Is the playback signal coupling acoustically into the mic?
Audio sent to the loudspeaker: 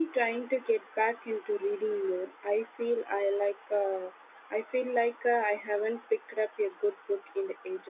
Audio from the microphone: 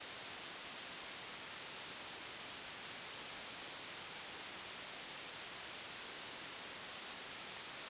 No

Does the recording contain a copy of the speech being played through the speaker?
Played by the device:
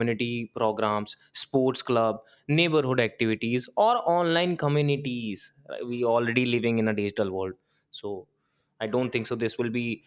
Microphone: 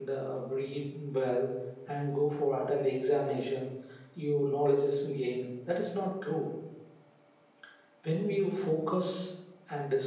No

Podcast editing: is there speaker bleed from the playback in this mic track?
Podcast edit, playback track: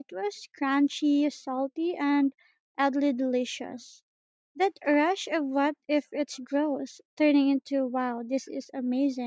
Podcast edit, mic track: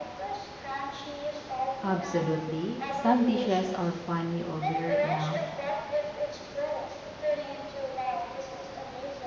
Yes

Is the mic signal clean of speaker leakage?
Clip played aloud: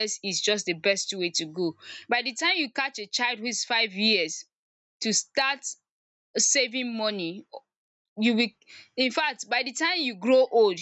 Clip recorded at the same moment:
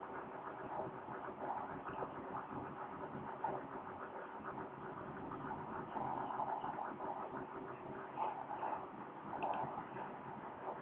Yes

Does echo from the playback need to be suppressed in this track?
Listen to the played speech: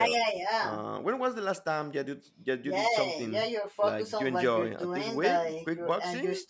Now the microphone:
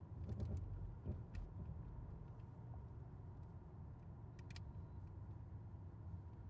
No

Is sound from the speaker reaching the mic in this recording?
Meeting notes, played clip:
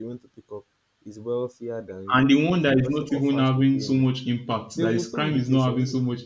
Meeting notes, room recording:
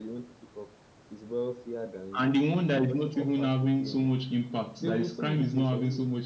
Yes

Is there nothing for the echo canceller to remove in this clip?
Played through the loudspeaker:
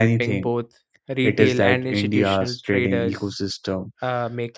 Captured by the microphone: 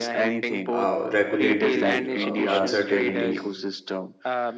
No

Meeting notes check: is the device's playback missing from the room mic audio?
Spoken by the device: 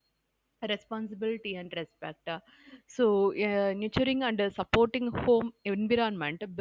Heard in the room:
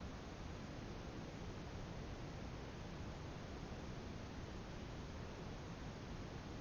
Yes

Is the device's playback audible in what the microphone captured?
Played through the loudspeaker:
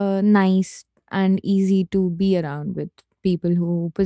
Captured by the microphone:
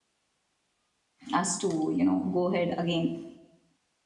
No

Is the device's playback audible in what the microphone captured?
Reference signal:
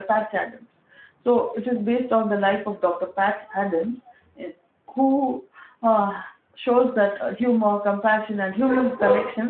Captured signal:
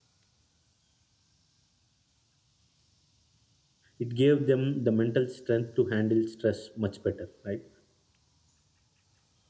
No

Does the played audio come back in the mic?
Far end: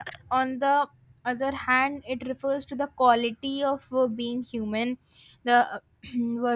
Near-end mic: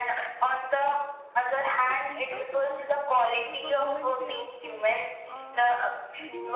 Yes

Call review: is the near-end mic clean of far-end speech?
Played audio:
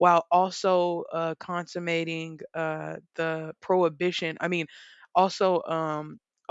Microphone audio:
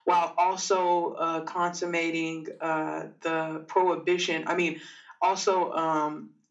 No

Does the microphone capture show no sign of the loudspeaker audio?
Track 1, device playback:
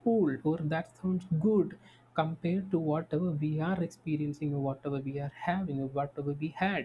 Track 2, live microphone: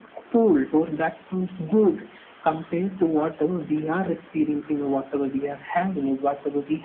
No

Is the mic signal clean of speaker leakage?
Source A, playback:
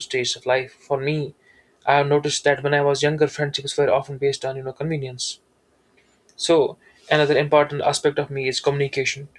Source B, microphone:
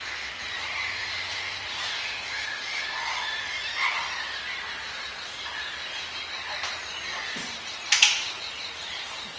Yes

